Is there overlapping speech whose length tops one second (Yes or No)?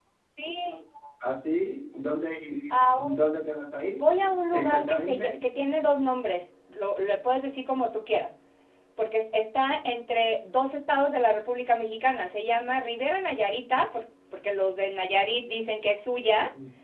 Yes